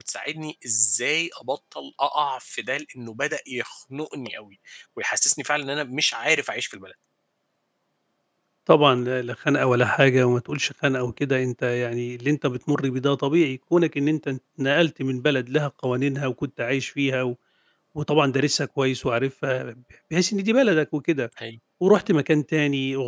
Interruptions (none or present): none